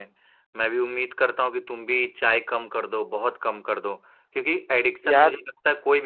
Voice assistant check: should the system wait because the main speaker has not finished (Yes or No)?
Yes